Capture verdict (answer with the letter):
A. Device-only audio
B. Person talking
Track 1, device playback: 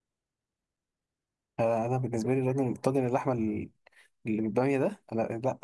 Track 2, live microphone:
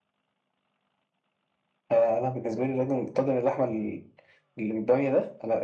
A